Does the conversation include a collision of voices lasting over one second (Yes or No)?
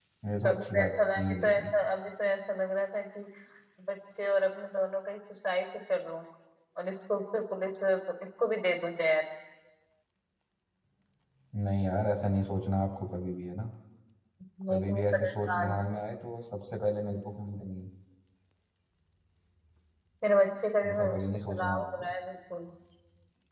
Yes